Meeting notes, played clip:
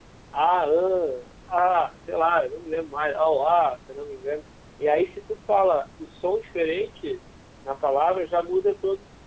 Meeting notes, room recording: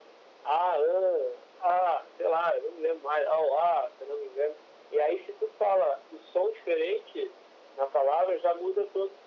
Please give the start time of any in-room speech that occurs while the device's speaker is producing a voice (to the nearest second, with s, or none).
none